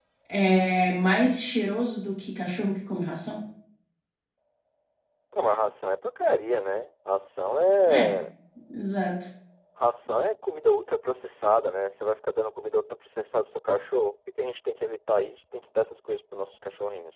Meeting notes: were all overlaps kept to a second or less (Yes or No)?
Yes